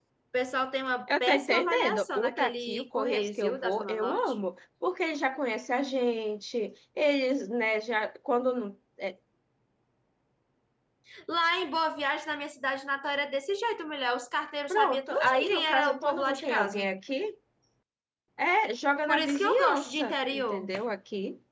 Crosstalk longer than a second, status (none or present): present